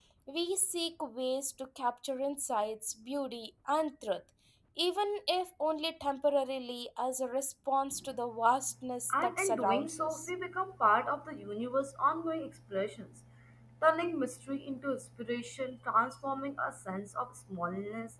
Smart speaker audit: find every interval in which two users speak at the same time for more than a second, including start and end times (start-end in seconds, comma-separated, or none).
9.1-10.3